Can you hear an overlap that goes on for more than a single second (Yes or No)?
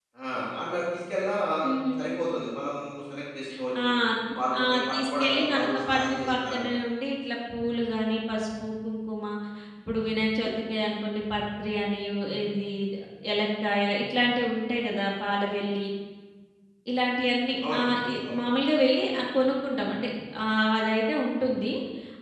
Yes